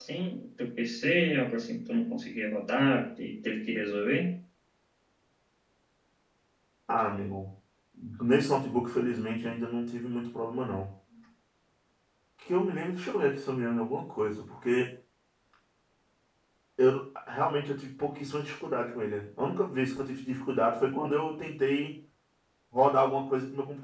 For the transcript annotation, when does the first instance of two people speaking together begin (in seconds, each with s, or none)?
none